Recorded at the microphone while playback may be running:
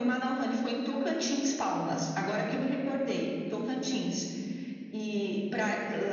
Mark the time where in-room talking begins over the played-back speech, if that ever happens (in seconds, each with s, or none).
none